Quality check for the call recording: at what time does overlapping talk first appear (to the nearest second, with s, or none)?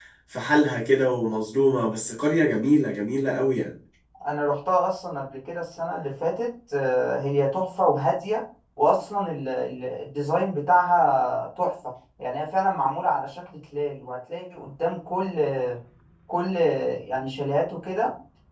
none